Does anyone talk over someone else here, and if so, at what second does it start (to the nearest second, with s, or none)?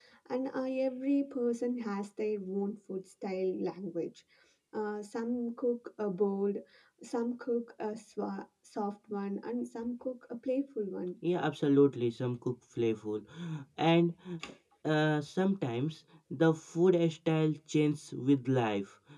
none